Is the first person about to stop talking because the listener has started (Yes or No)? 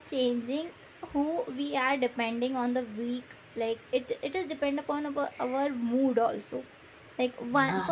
No